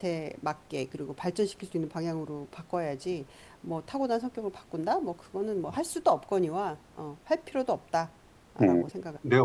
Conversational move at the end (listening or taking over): taking over